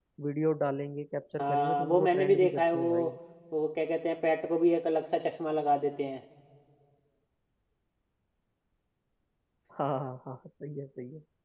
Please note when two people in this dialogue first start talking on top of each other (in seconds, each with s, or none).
1.4 s